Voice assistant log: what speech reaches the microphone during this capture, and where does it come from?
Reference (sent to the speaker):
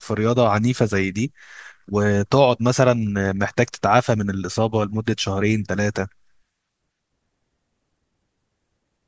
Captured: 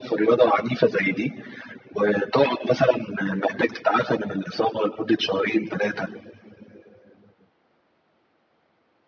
echo only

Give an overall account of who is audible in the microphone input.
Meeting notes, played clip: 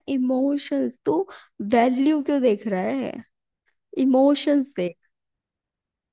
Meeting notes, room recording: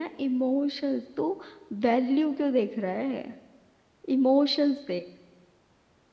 echo only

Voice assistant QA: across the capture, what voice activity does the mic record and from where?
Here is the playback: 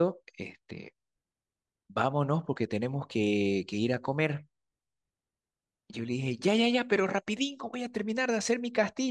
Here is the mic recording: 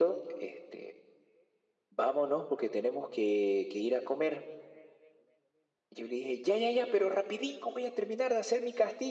echo only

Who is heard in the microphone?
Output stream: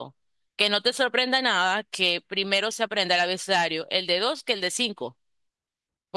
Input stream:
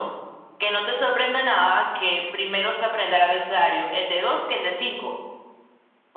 echo only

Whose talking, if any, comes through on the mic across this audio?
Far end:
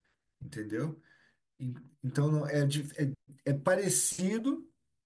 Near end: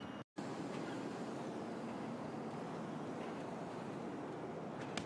neither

